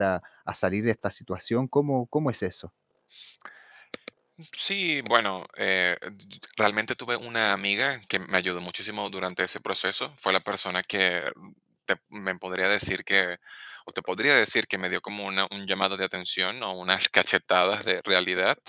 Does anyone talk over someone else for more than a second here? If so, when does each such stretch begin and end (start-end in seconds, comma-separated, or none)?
none